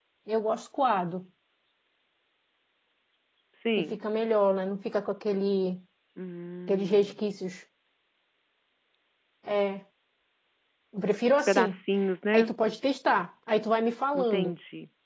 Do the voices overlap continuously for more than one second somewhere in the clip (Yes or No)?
No